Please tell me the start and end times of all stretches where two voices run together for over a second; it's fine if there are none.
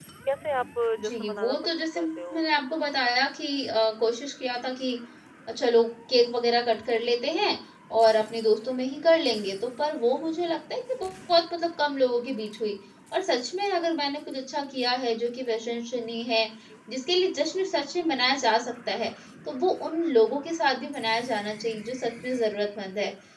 1.1-2.4

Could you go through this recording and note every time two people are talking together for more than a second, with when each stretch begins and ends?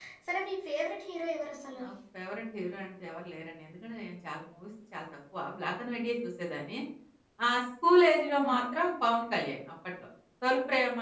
none

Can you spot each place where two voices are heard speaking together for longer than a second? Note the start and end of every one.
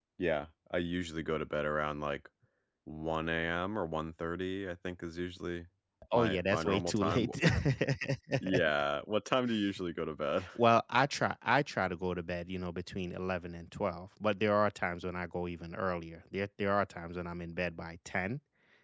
6.1-7.4

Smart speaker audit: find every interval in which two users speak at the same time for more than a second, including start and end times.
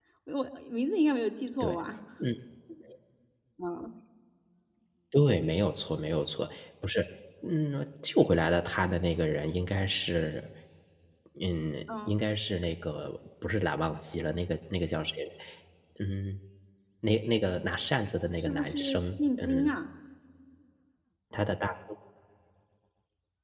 18.3-19.8

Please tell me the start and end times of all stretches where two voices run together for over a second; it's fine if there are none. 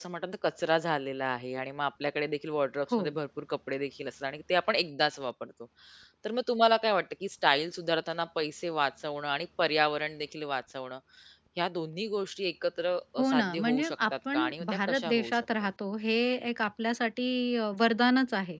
13.2-15.4

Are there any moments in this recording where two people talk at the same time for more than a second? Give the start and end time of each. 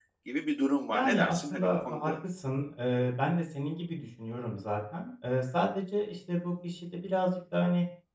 0.9-2.1

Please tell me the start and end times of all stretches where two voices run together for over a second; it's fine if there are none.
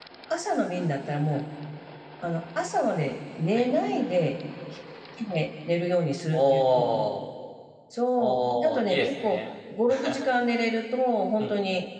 8.2-9.4

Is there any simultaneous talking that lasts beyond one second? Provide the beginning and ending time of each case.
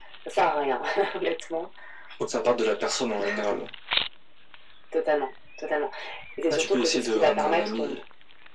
6.5-8.0

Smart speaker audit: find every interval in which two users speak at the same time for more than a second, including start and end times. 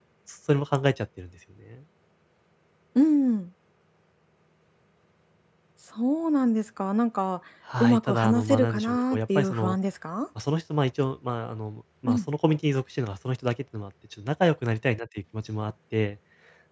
7.8-9.8

